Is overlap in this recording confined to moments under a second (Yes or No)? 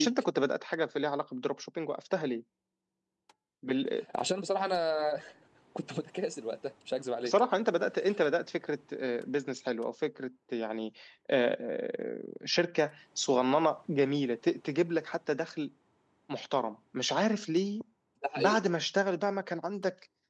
Yes